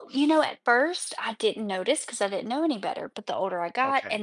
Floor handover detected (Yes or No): No